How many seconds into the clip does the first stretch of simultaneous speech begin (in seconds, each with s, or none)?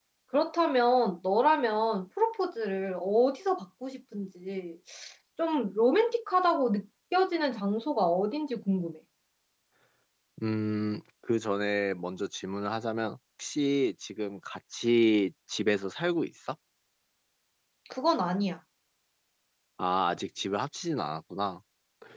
none